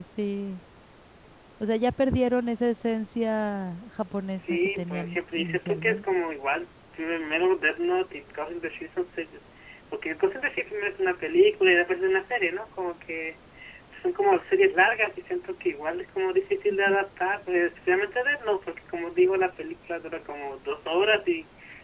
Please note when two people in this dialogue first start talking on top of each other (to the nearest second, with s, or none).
4 s